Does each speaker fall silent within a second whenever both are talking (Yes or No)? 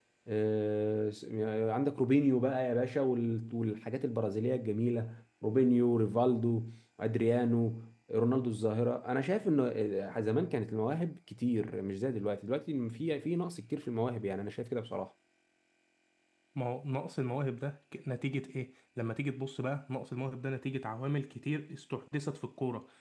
Yes